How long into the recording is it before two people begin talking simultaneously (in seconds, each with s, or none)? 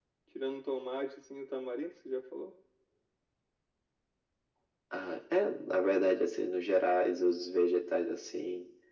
none